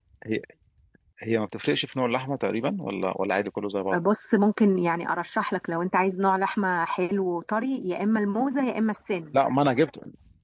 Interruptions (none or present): none